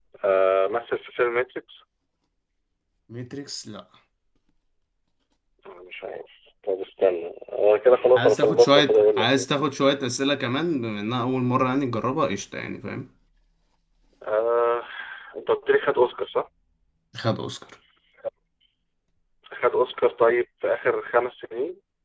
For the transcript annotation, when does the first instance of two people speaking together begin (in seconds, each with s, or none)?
8.2 s